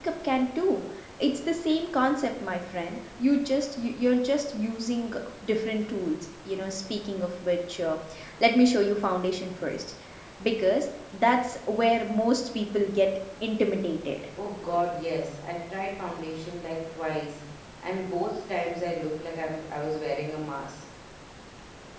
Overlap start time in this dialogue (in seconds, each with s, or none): none